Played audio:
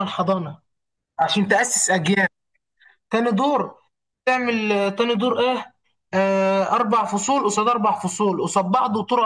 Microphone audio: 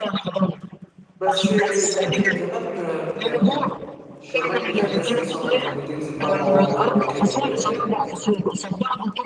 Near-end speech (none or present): present